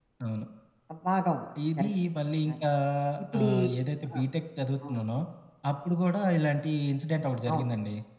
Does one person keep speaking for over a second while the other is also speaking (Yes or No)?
No